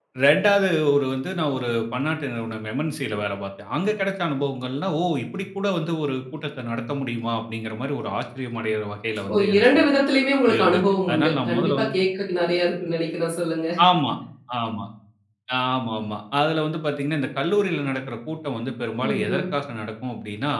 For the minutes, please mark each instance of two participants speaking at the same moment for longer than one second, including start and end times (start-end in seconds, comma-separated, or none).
10.6-11.9